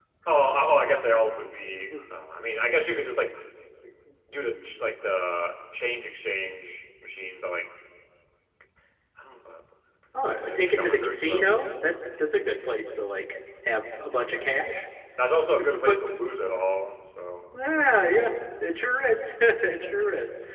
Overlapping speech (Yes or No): Yes